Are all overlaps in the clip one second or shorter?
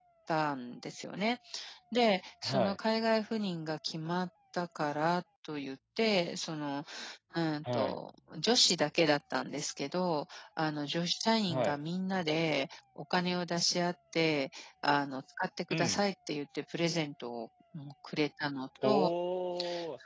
Yes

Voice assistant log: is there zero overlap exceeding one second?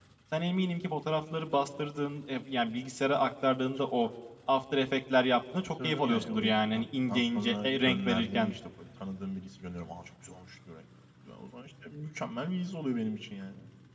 No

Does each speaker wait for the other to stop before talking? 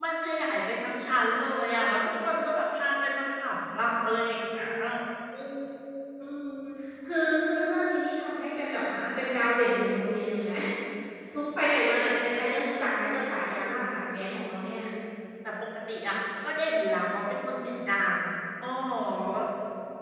Yes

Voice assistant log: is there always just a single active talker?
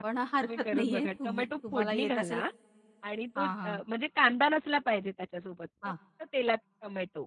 No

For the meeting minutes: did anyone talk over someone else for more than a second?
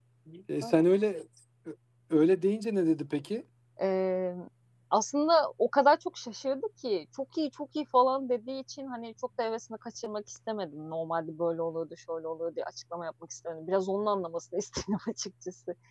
No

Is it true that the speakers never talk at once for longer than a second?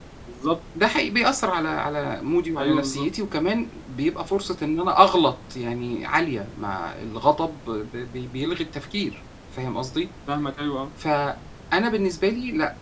Yes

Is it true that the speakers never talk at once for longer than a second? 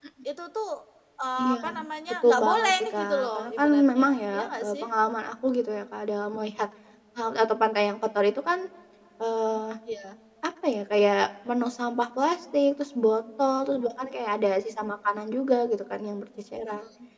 No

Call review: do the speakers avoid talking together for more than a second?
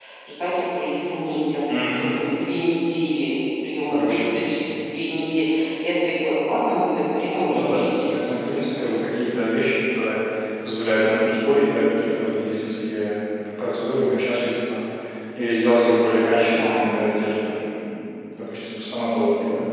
No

